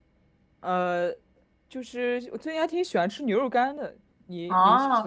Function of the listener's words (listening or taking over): taking over